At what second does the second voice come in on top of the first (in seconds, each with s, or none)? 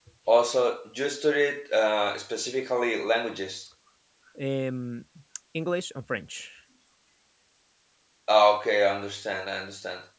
none